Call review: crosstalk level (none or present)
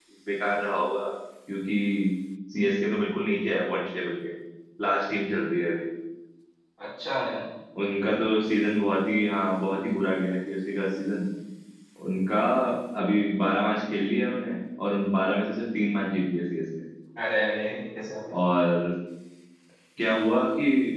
none